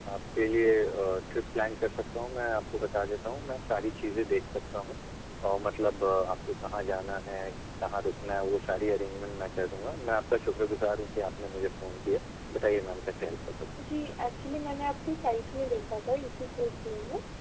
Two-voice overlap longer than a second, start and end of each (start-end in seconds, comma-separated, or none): none